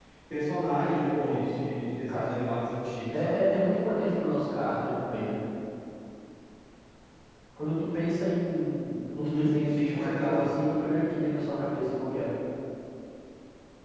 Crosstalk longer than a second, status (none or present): present